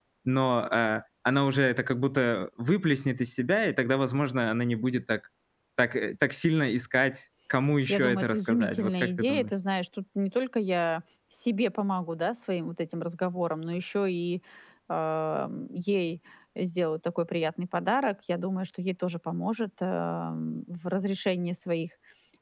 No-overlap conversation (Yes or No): No